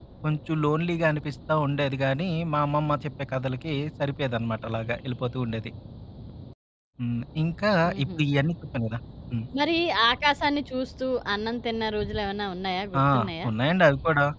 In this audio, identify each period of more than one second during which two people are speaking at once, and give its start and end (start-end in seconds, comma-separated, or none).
none